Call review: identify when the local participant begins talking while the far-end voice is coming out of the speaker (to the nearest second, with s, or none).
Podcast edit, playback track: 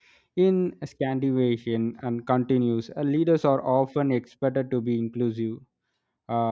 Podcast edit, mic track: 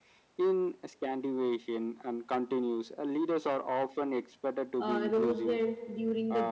5 s